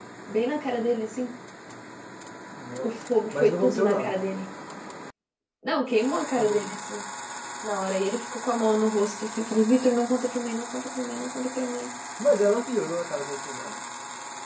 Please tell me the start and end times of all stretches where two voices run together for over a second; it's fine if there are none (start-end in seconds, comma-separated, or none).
2.8-4.2